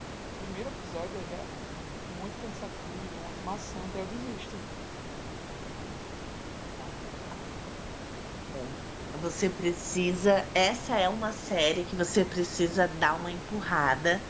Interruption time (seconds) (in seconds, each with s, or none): none